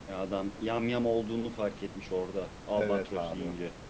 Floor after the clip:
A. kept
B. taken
B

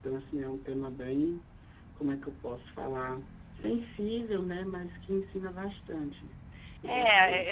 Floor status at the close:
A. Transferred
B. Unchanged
A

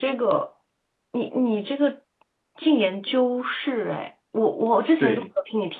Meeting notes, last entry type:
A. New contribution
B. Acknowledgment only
B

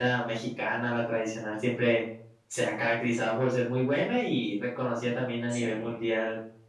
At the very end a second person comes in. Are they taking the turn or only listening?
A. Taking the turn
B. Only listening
B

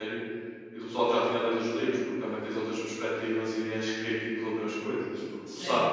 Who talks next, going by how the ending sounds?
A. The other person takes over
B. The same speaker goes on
A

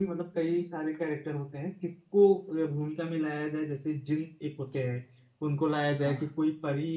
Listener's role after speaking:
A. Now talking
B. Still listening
B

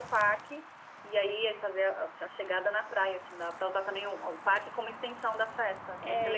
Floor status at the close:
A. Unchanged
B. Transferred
B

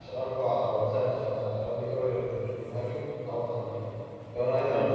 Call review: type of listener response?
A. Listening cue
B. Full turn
A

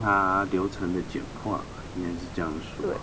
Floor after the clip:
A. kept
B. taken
B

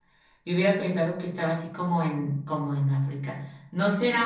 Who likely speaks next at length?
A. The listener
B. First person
B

